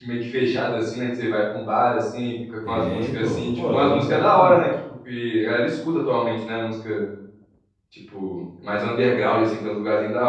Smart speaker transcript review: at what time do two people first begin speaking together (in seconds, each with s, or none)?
2.6 s